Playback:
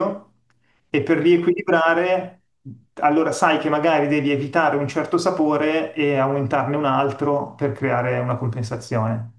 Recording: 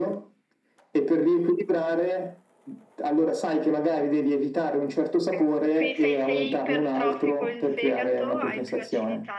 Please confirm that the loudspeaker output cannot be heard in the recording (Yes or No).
No